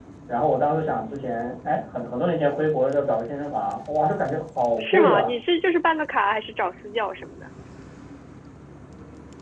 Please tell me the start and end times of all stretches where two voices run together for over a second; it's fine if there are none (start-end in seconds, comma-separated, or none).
none